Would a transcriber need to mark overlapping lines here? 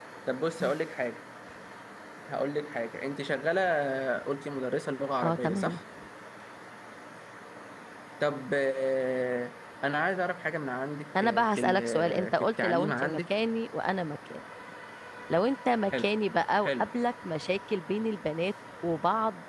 Yes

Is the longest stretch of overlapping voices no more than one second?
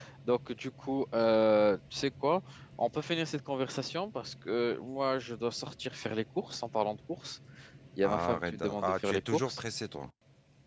No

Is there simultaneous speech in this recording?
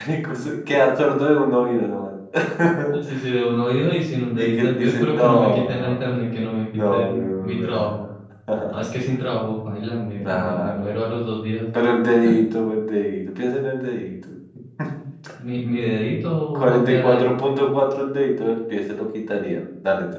Yes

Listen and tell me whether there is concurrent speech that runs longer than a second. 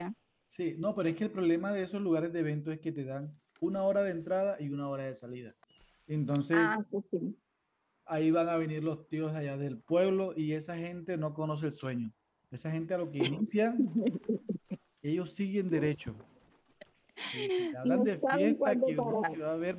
Yes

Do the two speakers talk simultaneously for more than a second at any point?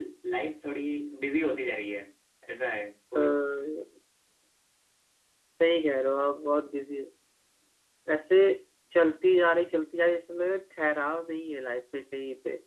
No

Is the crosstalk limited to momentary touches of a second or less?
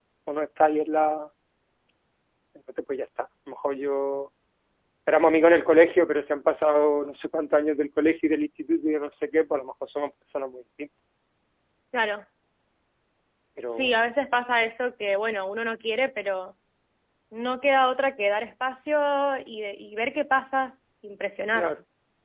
Yes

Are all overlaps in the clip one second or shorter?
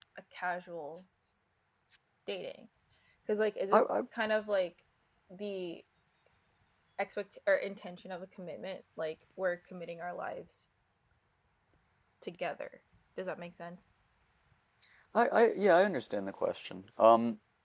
Yes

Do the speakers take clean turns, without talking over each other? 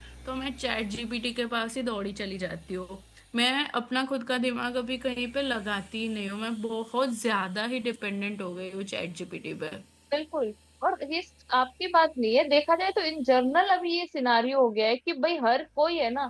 Yes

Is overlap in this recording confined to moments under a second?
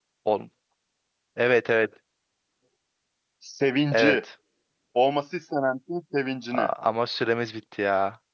Yes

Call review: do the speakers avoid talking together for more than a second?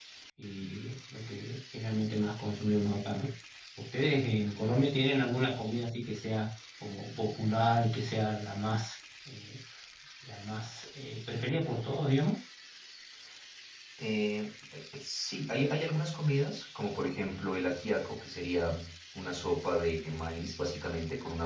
Yes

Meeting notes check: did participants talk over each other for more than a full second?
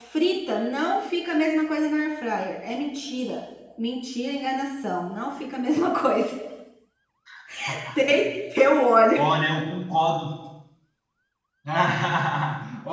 No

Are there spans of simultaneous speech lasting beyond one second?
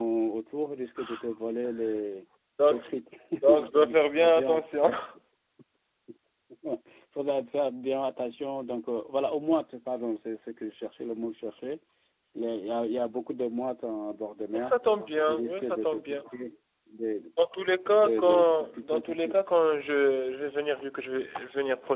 Yes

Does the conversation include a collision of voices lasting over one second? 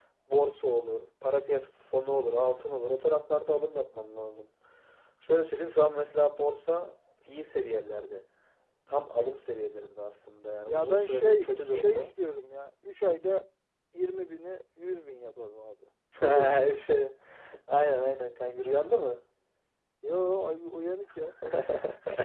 Yes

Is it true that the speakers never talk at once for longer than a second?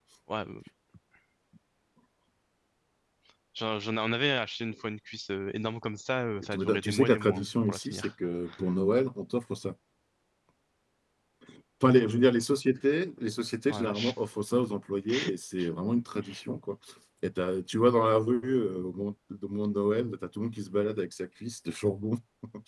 No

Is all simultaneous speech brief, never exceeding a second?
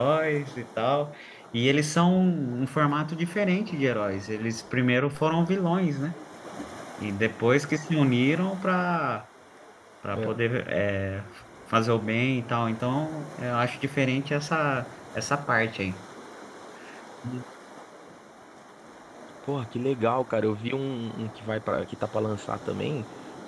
Yes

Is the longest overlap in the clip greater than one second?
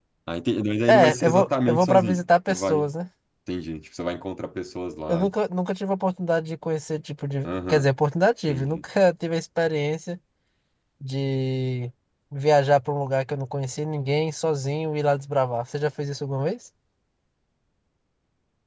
Yes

